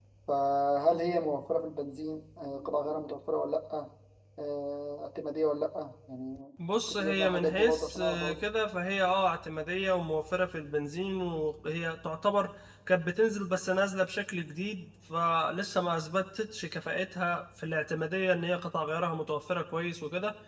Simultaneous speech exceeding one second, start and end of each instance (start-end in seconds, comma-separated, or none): 6.8-8.4